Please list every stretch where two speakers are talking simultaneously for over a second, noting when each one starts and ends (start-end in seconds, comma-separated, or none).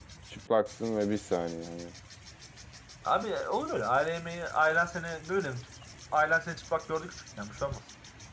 none